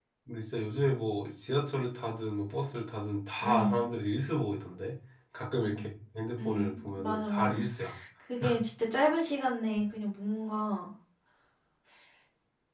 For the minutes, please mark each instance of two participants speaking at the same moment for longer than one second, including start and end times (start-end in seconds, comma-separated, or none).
6.4-7.7